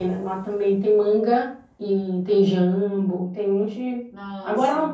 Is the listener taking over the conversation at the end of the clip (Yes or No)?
No